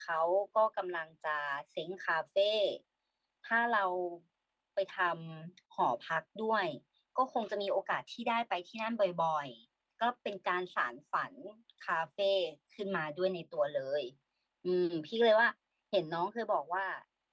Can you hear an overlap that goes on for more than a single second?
No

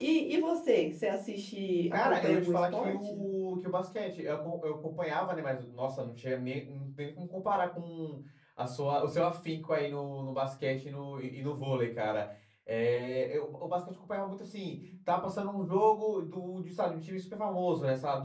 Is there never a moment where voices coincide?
No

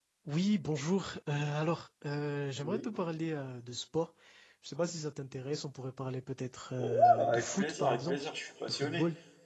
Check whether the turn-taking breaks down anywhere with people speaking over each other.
Yes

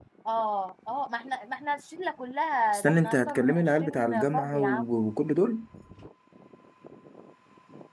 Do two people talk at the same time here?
Yes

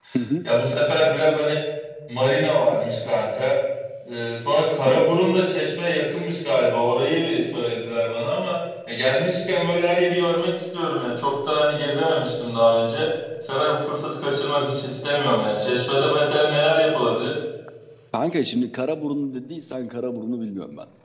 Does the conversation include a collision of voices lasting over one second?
No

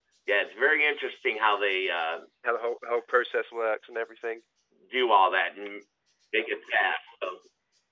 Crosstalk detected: No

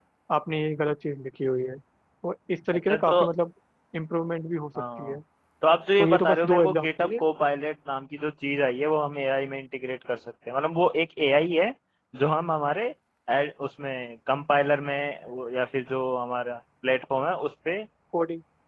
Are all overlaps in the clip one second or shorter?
No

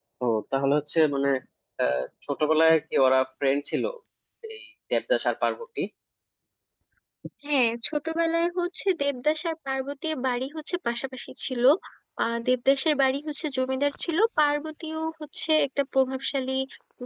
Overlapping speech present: No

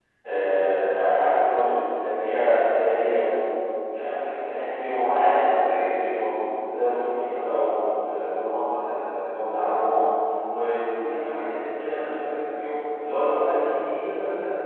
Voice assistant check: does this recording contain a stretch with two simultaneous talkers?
No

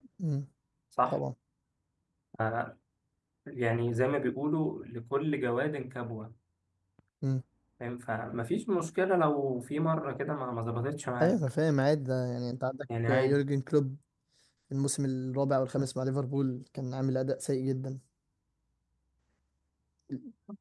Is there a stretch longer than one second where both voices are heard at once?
No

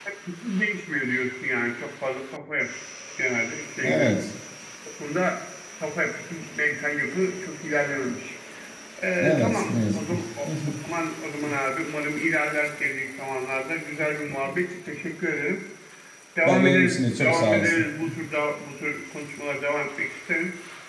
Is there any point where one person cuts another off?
Yes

